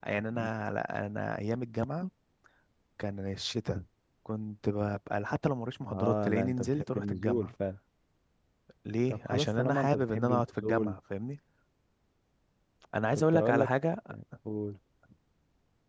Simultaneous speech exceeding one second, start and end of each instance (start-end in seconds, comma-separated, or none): 5.9-7.5, 9.1-10.9